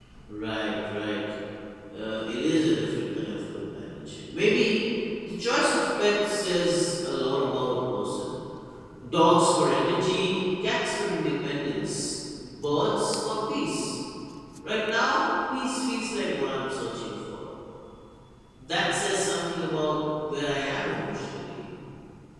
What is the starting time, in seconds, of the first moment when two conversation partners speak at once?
none

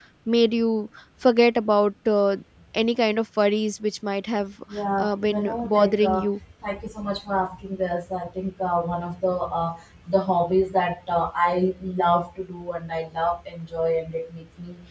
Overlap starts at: 5.0 s

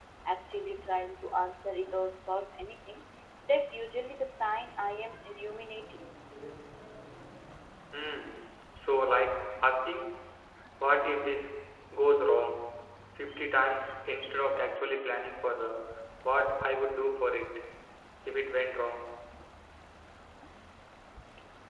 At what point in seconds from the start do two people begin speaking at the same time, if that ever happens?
none

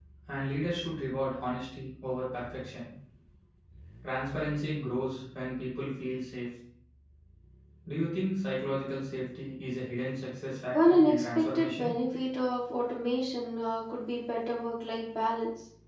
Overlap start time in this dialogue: 10.7 s

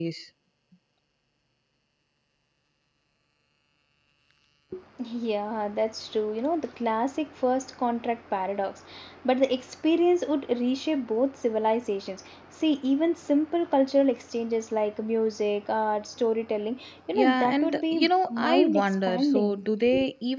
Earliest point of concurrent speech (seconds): 17.1 s

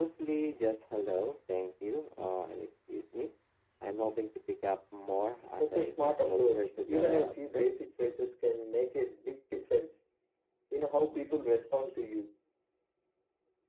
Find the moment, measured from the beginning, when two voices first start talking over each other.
5.6 s

